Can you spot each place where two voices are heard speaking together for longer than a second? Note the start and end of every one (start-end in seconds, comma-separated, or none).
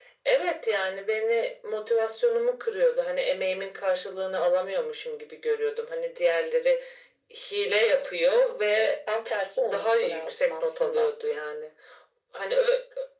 9.6-11.1